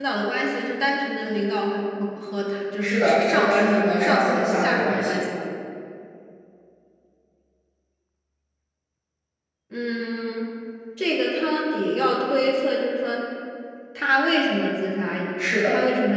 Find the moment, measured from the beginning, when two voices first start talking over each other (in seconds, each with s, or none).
2.8 s